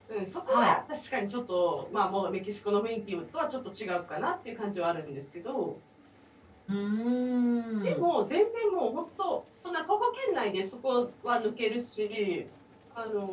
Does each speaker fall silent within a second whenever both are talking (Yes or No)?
Yes